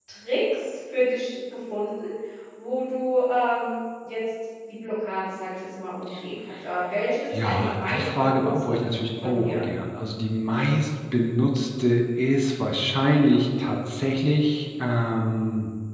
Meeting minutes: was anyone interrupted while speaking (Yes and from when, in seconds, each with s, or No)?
Yes, from 7.3 s